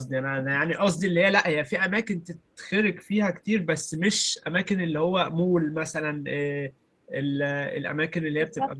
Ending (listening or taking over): listening